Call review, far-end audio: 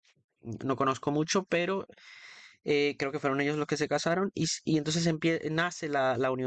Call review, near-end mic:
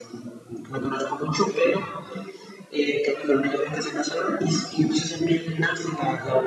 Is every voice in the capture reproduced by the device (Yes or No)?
Yes